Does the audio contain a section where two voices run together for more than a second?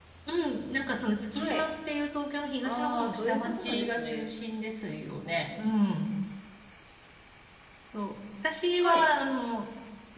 Yes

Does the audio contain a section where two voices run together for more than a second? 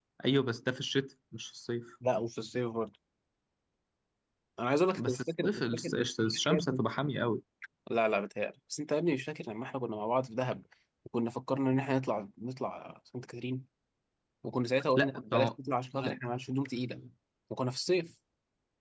Yes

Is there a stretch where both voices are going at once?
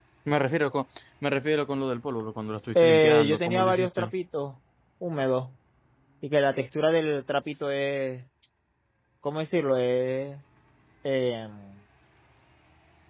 Yes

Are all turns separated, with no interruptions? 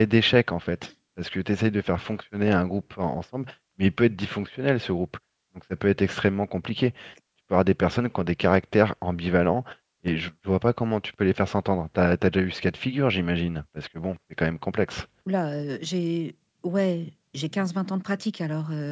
Yes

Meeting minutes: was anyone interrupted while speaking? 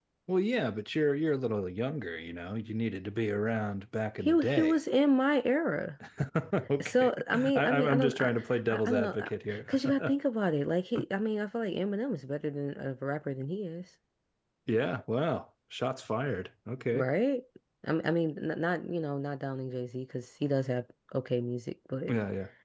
Yes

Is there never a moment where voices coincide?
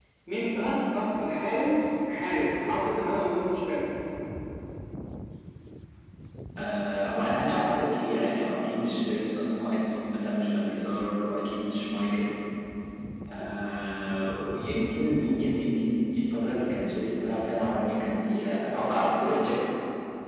Yes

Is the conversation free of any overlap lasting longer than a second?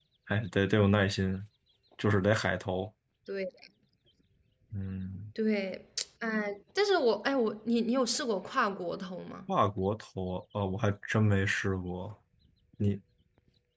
Yes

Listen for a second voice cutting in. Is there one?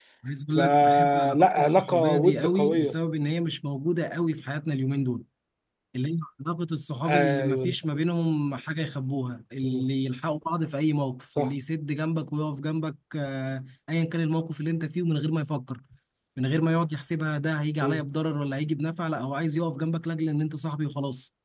Yes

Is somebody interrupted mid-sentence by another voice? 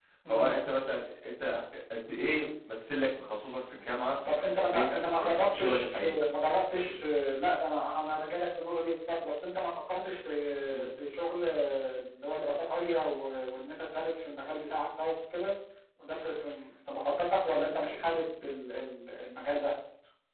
Yes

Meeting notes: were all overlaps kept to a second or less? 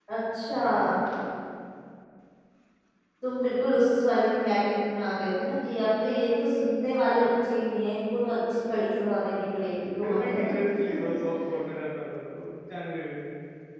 Yes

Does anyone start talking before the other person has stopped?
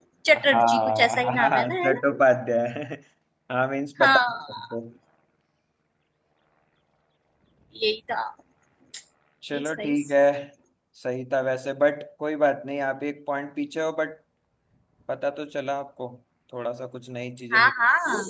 Yes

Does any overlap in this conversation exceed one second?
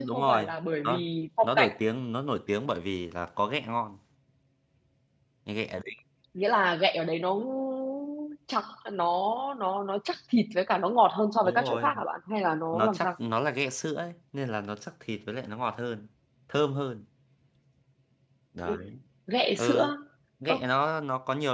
No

